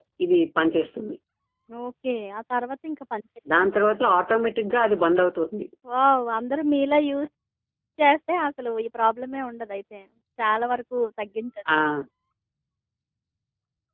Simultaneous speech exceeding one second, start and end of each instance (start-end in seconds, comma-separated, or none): none